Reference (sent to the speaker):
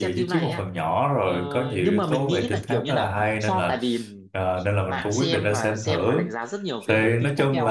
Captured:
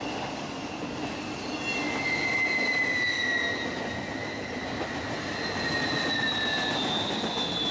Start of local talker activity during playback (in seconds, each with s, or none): none